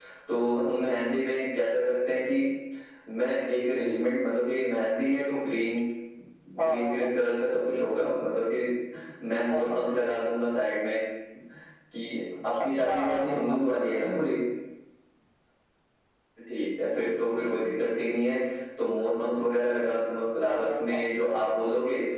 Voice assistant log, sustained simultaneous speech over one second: present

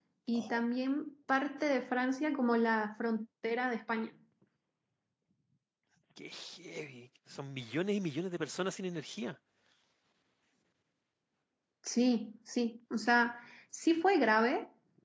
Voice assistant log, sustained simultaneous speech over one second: none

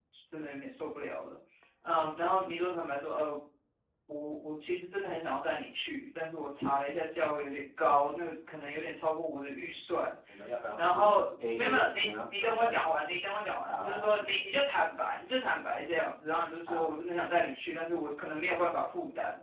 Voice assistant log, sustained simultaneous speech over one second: present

